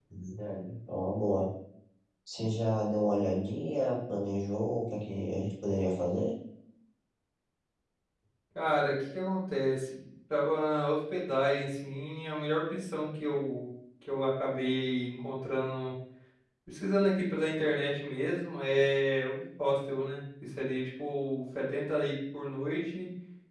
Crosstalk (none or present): none